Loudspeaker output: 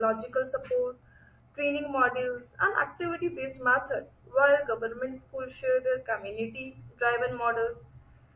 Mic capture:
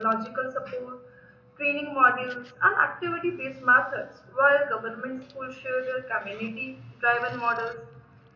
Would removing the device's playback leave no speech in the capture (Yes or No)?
Yes